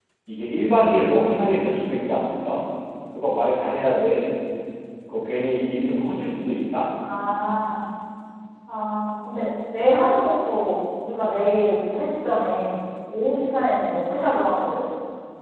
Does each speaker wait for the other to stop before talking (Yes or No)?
Yes